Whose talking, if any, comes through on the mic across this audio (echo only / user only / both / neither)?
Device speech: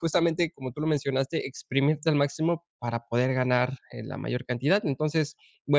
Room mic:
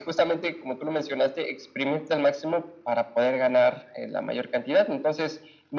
echo only